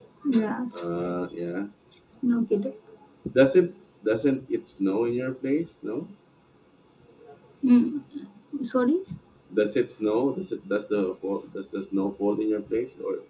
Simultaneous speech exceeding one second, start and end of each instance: none

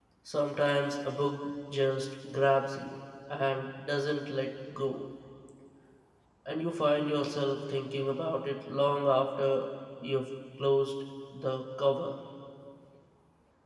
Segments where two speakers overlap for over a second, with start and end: none

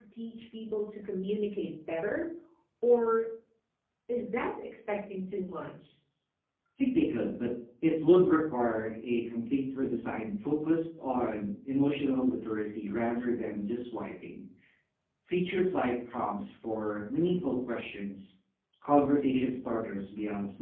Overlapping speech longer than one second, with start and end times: none

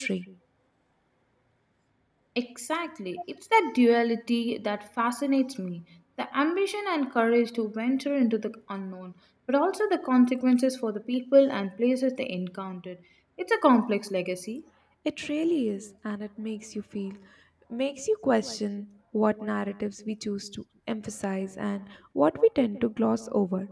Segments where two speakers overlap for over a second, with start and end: none

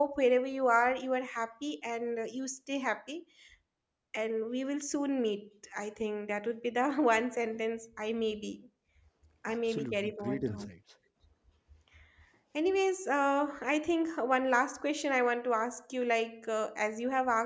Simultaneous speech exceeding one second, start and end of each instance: 9.5-10.7

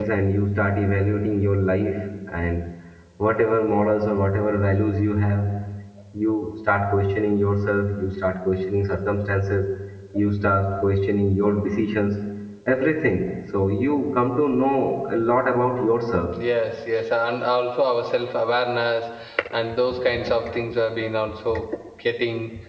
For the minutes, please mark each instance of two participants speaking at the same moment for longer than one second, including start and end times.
none

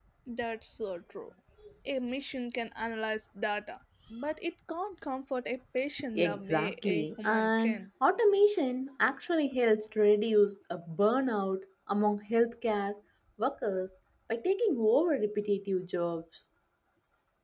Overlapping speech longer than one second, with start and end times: 6.2-7.8

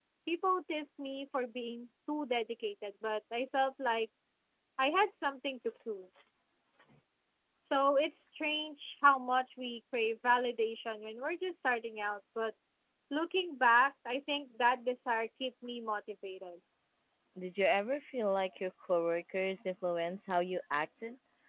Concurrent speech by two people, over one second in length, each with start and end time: none

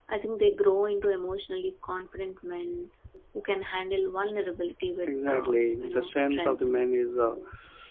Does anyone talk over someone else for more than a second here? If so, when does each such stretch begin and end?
5.0-6.6

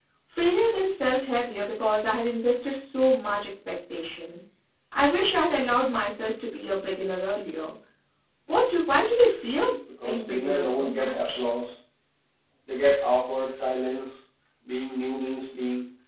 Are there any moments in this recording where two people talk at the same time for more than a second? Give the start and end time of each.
10.0-11.4

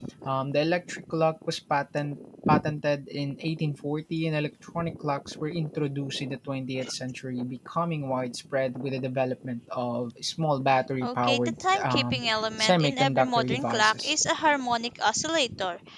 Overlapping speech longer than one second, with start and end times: 11.0-12.2, 12.6-14.2

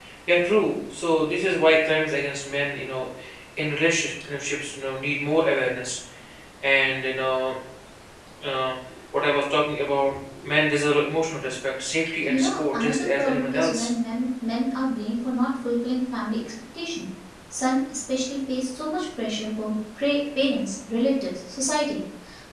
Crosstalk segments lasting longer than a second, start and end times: 12.3-13.9

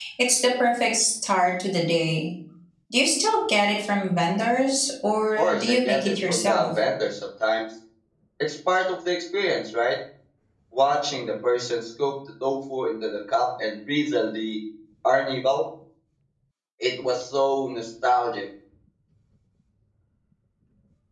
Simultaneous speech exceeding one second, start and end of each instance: 5.4-6.7

